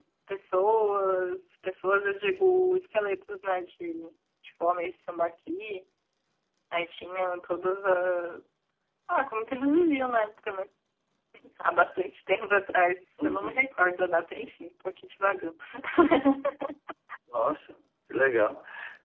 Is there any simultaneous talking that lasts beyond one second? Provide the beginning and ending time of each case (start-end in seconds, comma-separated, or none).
none